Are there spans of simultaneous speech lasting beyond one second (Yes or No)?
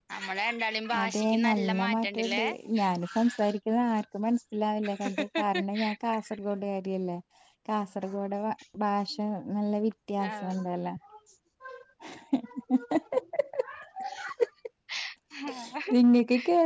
Yes